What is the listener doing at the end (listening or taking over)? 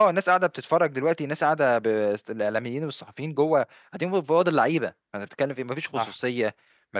listening